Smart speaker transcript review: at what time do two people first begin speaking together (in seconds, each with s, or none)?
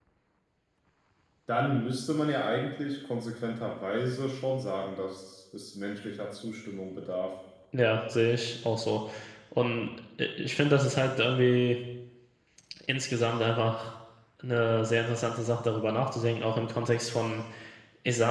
none